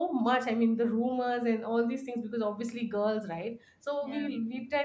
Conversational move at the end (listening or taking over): listening